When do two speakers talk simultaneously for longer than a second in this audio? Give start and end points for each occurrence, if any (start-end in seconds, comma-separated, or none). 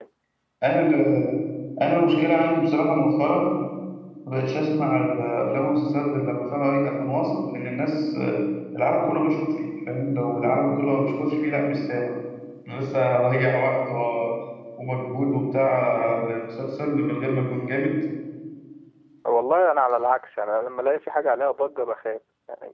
none